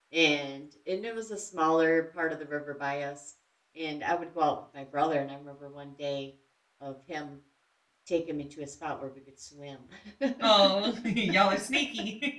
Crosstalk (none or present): none